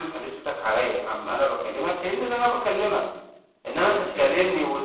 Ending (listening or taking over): listening